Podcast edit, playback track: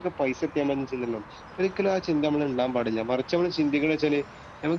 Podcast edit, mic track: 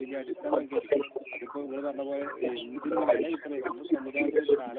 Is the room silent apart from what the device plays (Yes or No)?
No